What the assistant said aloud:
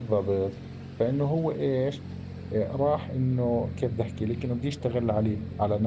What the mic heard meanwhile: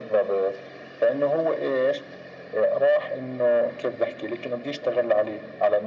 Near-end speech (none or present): none